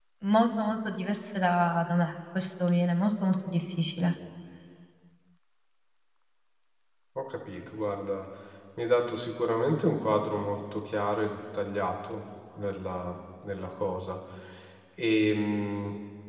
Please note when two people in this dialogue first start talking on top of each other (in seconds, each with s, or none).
none